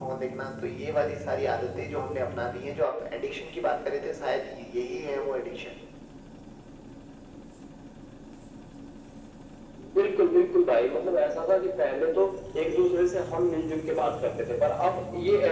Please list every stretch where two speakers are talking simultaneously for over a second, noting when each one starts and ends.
none

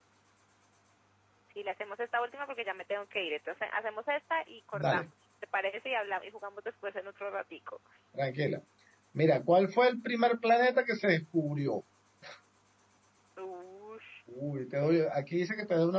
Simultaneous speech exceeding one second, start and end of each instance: none

